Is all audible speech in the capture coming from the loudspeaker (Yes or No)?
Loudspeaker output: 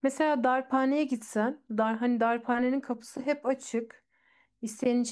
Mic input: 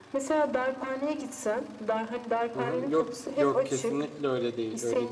No